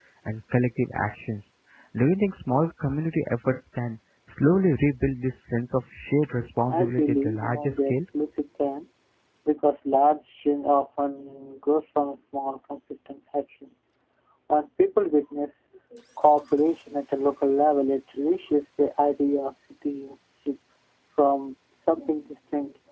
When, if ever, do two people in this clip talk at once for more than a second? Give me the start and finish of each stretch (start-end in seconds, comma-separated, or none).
6.7-8.0